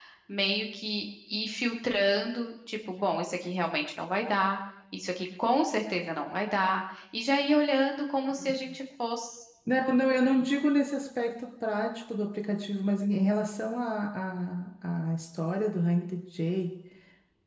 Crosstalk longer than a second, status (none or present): none